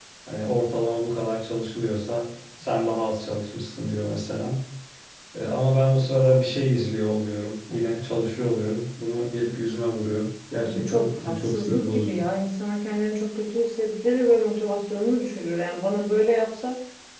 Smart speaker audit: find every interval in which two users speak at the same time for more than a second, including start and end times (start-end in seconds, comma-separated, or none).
10.7-12.2